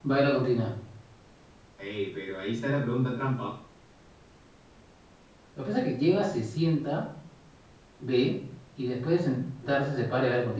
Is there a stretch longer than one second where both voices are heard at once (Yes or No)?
No